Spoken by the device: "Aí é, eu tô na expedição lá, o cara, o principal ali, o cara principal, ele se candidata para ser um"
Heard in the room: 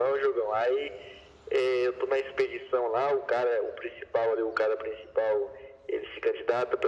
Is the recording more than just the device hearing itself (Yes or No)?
No